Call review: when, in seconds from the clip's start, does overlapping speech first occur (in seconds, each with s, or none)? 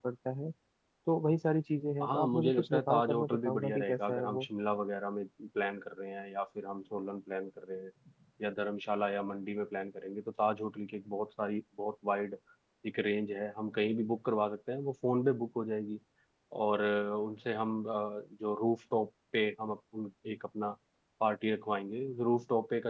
2.0 s